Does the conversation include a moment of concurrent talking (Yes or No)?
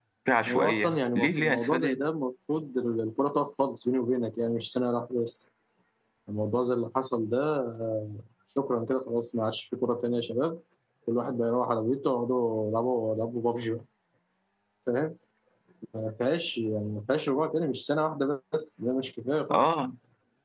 Yes